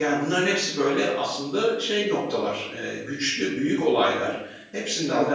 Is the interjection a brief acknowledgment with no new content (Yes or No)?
Yes